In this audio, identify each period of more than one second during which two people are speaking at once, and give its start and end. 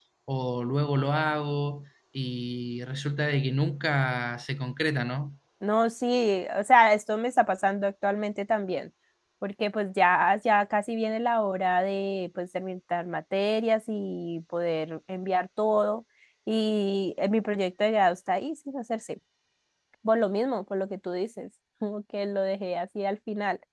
none

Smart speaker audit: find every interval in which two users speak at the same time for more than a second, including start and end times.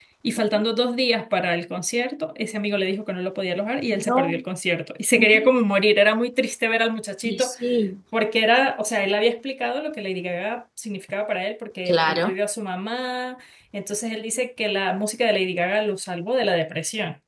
none

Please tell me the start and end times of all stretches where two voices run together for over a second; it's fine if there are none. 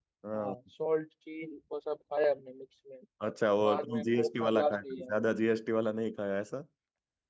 3.6-5.1

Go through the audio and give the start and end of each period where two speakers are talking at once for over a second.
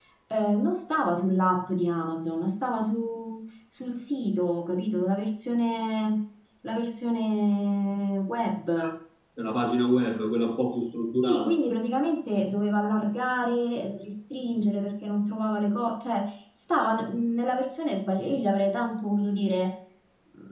none

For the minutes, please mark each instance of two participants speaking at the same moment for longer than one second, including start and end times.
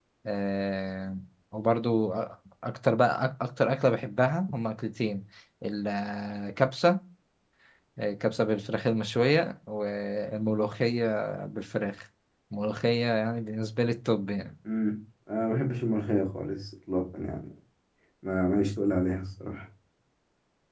none

